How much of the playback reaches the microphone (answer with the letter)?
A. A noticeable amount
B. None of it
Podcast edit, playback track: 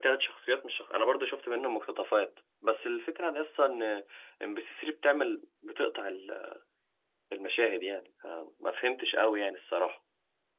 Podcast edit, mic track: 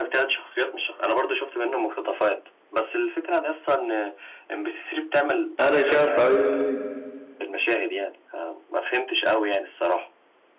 A